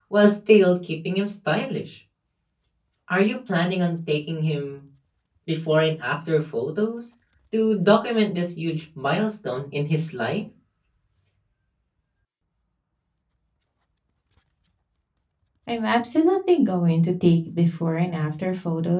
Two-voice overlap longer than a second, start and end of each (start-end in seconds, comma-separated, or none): none